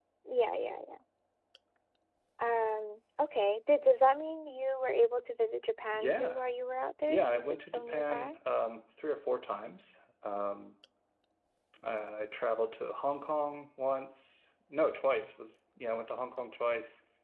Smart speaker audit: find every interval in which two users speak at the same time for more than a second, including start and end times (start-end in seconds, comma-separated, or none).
7.1-8.3